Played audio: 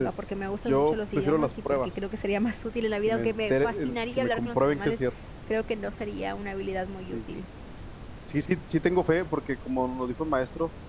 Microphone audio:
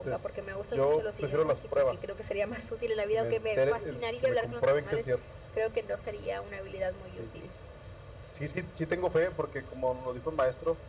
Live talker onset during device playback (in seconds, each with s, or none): none